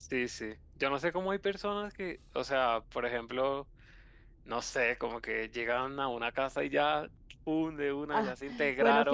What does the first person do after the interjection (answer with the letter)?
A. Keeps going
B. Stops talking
B